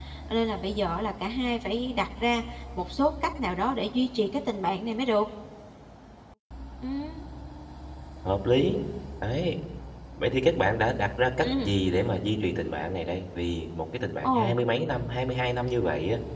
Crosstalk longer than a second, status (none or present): none